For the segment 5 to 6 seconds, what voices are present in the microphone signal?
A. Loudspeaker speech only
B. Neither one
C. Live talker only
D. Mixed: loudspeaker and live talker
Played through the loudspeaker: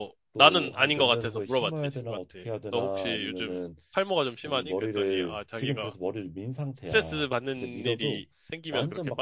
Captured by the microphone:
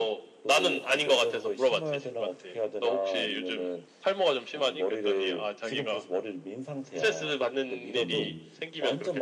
A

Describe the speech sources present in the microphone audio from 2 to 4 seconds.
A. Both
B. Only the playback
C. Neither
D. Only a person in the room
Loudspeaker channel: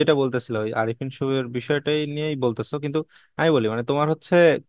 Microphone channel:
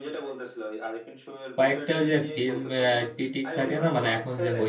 A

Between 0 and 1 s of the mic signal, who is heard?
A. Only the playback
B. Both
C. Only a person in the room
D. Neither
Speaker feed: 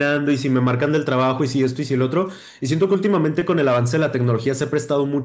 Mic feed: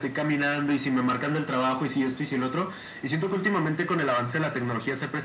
A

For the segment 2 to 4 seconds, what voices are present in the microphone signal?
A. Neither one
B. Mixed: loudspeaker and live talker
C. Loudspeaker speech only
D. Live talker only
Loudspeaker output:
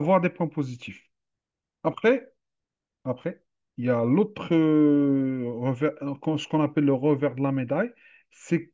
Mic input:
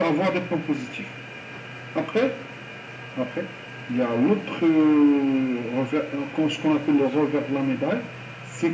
C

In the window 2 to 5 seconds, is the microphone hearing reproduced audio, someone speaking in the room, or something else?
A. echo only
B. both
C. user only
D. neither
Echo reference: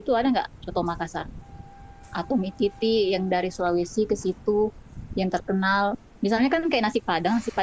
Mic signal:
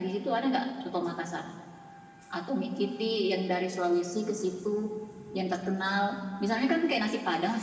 A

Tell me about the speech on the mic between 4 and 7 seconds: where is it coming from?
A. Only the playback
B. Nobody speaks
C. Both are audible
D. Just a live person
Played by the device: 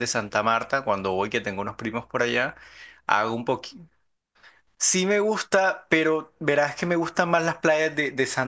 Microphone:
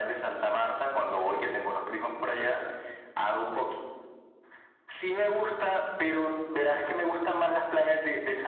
A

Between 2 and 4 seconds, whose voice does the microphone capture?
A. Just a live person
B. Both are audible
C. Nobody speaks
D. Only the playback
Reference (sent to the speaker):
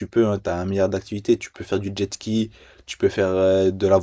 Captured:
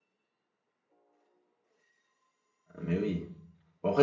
A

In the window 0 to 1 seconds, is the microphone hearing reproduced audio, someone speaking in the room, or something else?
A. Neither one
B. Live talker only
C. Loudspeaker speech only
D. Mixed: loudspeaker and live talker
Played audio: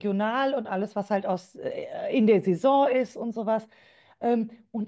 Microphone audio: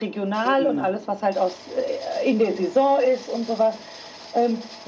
D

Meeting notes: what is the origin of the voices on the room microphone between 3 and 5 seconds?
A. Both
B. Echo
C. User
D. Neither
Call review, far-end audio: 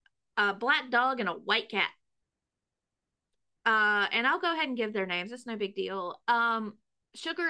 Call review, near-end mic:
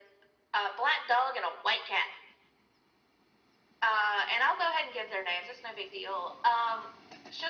B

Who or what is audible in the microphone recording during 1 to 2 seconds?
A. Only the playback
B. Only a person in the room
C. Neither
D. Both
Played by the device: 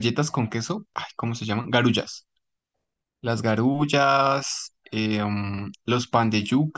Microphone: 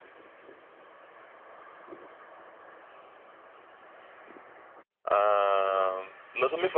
C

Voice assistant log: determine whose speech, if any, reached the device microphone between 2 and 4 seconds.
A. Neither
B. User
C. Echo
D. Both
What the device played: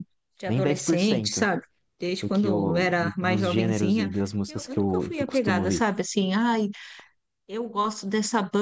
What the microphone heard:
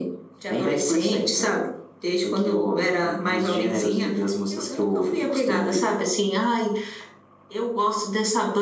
C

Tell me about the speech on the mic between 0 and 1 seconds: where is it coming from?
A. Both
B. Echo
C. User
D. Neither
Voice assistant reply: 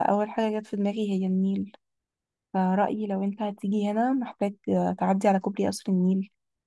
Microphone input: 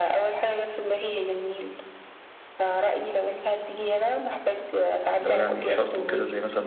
B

